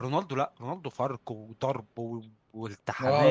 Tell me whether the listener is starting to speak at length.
Yes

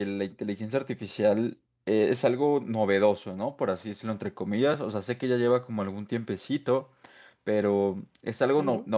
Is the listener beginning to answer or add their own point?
No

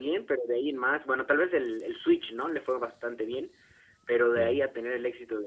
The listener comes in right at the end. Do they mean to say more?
No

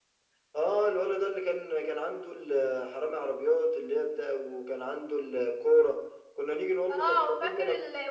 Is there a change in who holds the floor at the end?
Yes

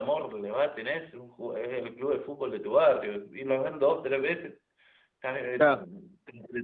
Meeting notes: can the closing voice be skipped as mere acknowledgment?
Yes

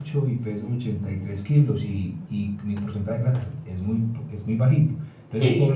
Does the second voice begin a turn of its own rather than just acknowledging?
Yes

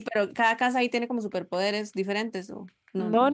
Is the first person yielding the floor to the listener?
Yes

